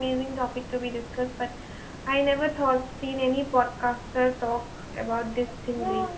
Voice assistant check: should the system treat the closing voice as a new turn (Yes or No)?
Yes